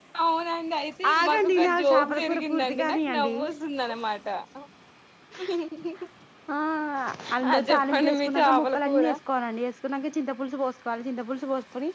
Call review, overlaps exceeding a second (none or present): present